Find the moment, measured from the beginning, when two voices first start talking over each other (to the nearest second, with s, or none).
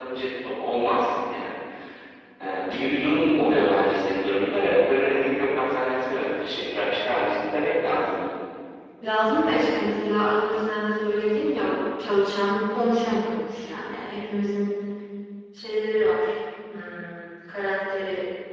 none